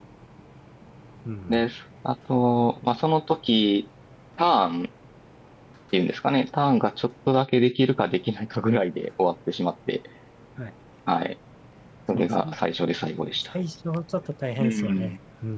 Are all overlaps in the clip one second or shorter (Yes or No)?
Yes